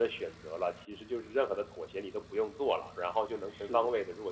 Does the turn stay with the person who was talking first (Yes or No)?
Yes